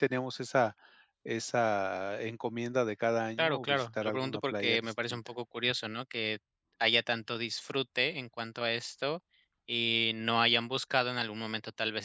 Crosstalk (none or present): present